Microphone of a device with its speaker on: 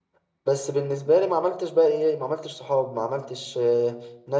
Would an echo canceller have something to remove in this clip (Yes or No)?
No